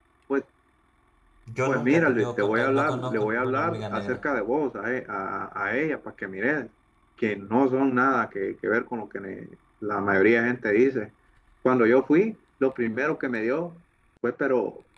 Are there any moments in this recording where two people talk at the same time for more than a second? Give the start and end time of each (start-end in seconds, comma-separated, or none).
1.7-4.2